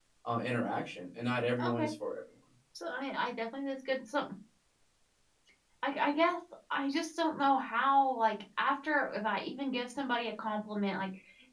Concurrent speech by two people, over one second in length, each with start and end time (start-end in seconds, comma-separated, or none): none